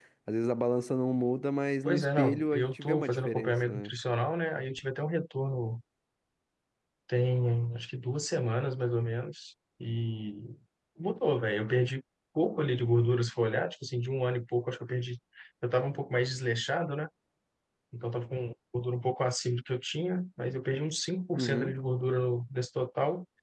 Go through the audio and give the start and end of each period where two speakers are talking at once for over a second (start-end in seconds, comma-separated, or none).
1.9-3.9